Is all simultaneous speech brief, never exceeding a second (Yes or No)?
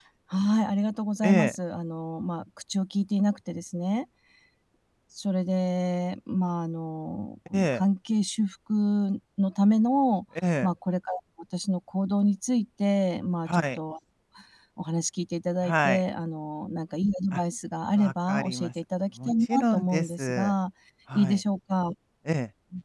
No